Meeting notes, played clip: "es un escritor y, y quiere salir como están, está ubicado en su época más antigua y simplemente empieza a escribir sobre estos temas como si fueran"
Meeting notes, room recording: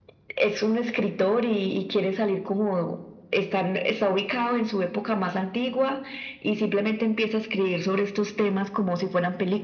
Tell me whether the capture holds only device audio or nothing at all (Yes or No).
Yes